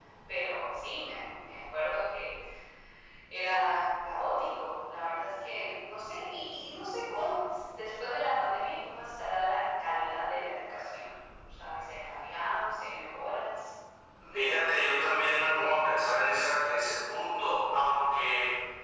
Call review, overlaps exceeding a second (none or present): none